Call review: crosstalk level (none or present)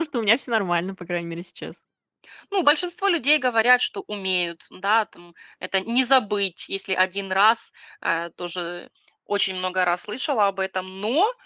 none